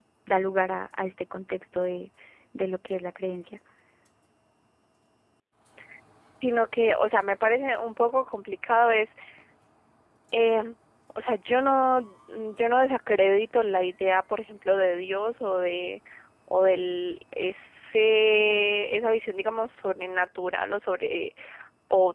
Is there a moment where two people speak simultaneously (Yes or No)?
No